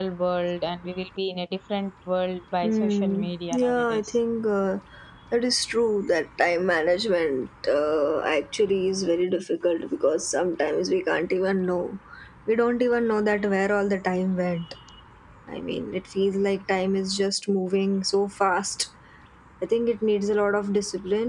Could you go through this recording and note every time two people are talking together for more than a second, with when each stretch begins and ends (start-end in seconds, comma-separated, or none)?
2.6-4.1